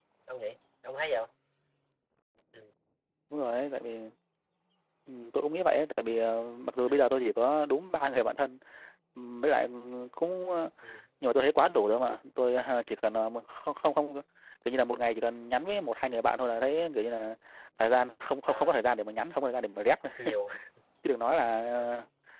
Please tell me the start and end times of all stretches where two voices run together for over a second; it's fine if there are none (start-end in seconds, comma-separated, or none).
none